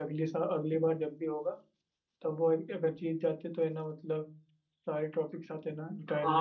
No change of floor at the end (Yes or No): No